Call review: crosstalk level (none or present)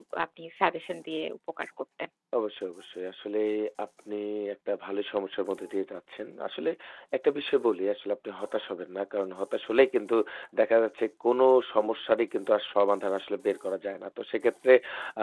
none